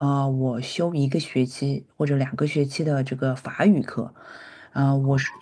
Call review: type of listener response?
listening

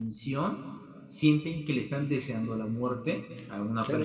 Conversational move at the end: taking over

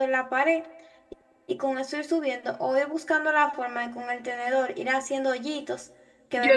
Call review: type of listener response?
taking over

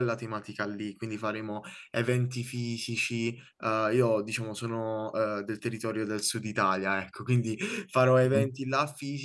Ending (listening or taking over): listening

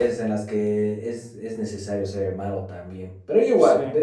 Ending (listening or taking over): listening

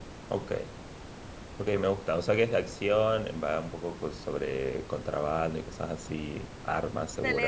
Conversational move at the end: taking over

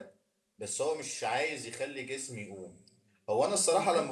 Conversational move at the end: listening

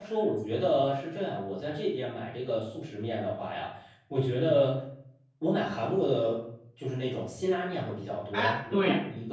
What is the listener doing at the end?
listening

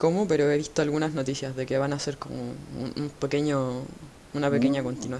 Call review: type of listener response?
taking over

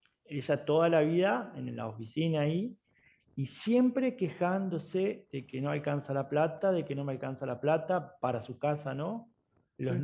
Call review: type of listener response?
listening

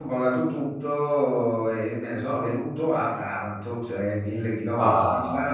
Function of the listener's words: listening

